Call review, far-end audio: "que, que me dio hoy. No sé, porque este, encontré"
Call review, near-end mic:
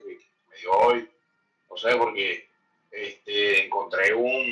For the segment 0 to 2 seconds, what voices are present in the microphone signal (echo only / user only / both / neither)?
echo only